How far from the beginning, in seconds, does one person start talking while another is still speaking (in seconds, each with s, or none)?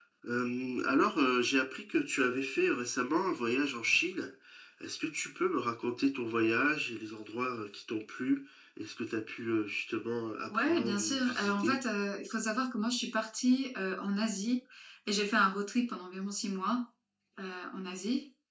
10.5 s